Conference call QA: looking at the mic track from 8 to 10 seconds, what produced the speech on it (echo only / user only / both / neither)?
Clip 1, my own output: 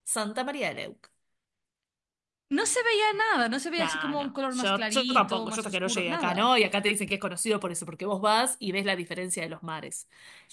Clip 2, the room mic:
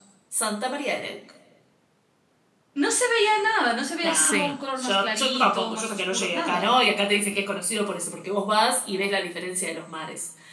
echo only